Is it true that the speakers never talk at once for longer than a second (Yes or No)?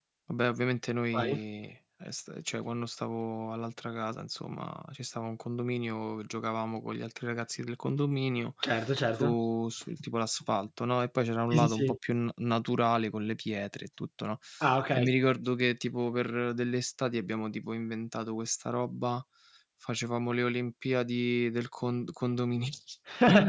Yes